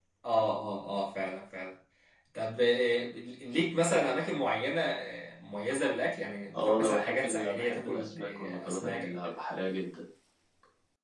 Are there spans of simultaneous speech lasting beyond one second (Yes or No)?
Yes